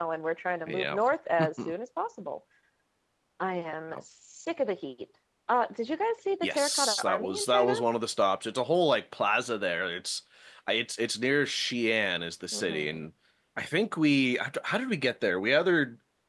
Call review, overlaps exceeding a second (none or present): present